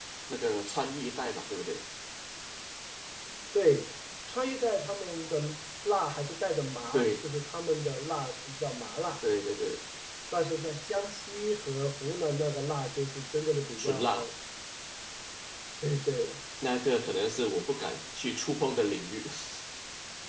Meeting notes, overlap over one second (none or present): none